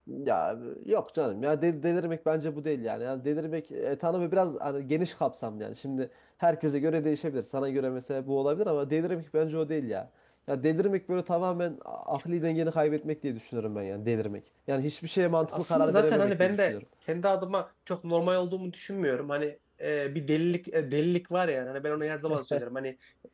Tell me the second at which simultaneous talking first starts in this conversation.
15.5 s

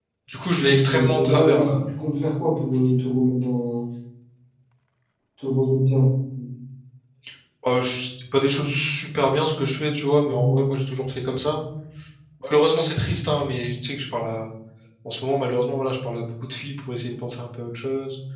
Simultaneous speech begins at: 0.6 s

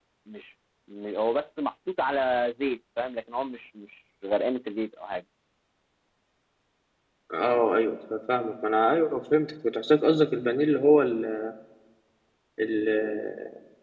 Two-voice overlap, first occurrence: none

